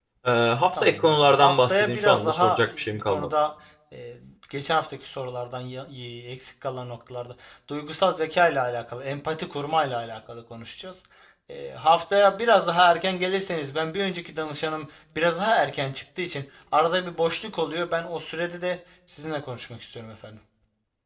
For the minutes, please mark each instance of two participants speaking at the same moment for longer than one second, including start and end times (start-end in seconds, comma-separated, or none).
0.7-3.3